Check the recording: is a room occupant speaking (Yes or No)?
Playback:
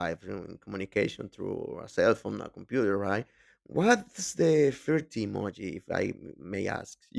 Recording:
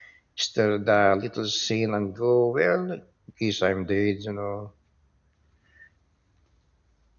Yes